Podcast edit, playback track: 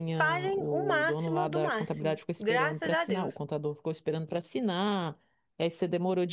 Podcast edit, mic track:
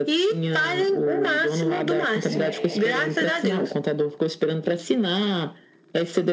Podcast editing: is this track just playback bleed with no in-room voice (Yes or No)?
No